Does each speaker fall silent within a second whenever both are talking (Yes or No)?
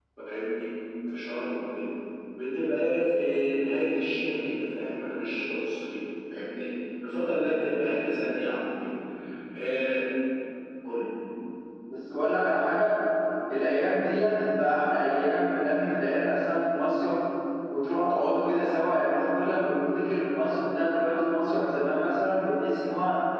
Yes